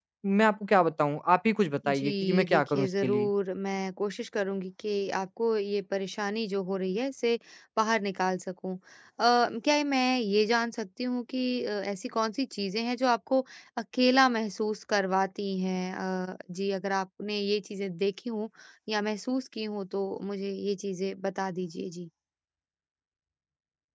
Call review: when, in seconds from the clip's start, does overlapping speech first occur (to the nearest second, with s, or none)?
2 s